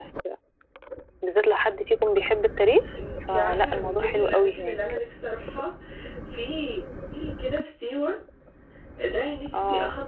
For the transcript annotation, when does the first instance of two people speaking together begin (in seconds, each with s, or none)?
3.3 s